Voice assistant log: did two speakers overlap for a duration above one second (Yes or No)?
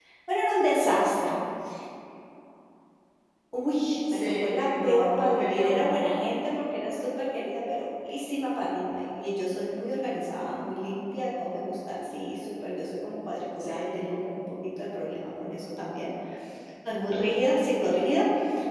Yes